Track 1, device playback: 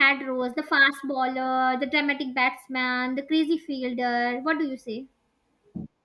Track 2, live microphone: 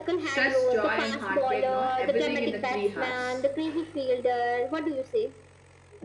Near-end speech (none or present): present